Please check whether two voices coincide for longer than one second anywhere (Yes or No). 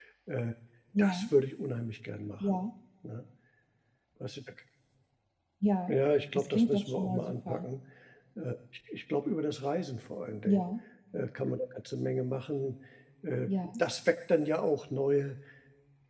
Yes